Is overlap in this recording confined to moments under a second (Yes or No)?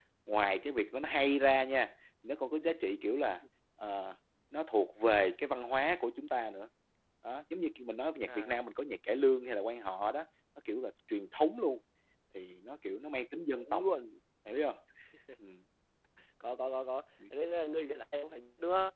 Yes